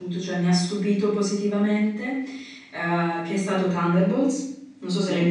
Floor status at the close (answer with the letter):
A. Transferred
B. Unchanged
A